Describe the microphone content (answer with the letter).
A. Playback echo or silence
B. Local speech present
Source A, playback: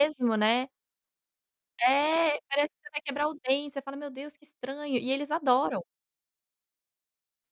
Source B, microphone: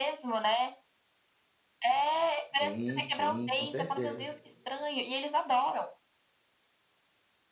B